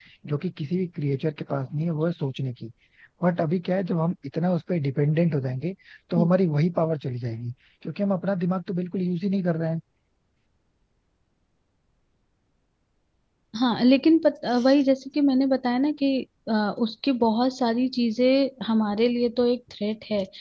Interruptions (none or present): none